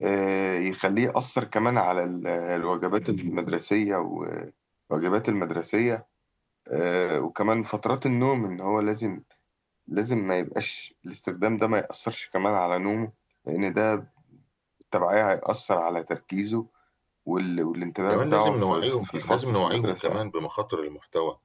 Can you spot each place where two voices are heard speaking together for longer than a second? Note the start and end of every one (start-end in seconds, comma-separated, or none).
18.1-20.2